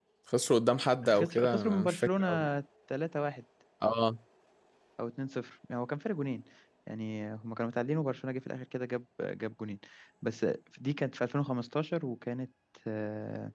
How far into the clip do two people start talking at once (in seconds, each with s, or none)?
1.0 s